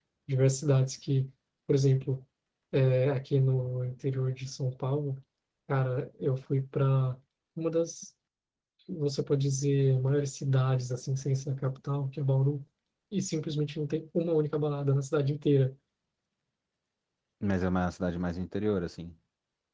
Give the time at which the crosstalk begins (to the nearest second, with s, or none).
none